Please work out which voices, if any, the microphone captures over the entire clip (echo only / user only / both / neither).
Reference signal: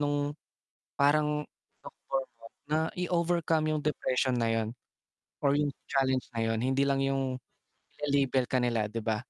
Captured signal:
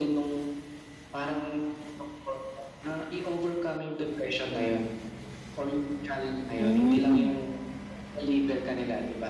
both